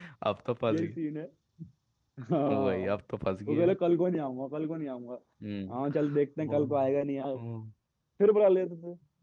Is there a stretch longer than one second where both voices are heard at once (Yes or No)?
No